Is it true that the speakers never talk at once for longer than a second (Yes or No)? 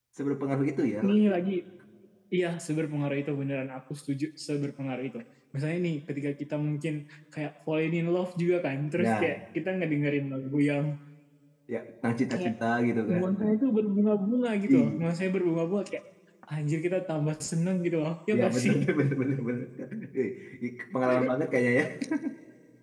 Yes